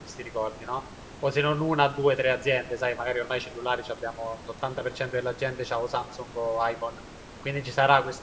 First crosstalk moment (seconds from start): none

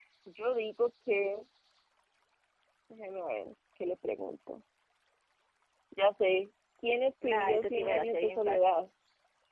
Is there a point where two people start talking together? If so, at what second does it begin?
7.2 s

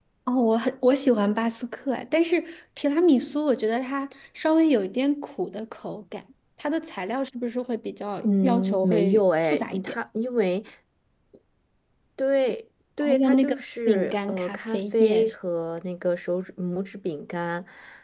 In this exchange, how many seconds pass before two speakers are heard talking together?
8.2 s

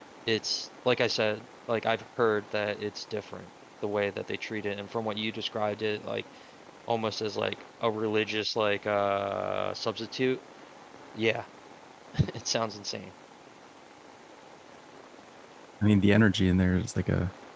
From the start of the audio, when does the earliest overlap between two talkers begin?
none

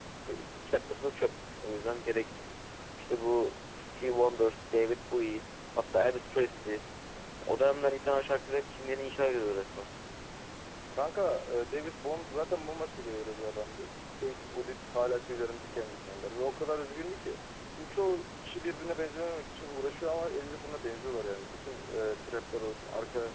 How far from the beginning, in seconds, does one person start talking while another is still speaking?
none

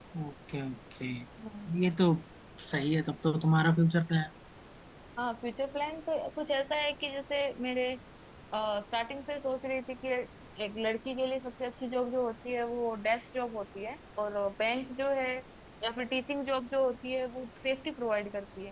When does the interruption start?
none

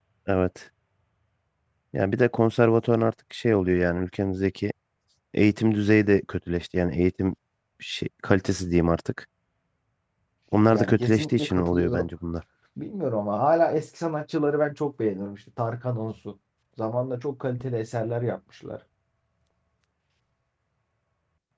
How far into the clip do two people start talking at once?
10.7 s

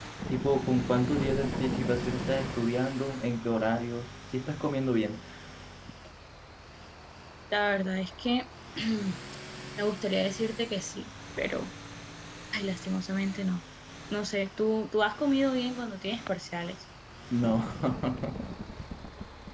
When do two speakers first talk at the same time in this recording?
none

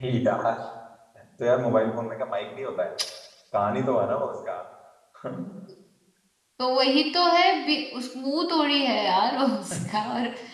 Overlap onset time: none

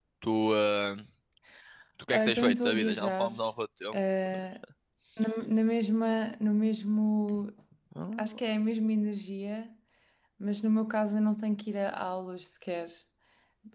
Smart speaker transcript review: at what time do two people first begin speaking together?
2.1 s

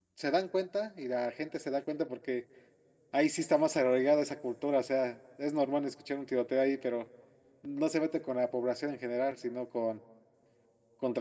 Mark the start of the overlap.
none

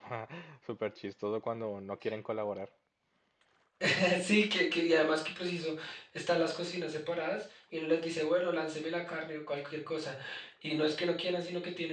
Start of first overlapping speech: none

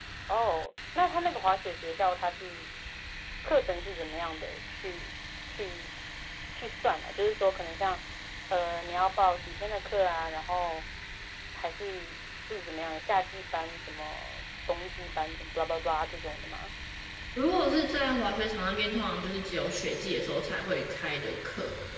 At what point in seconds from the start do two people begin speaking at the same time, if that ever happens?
none

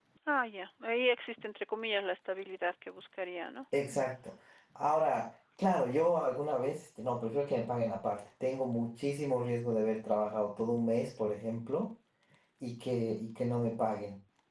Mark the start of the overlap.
none

